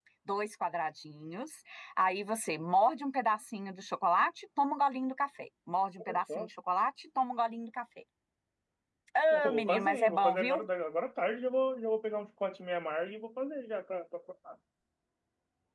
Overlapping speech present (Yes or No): Yes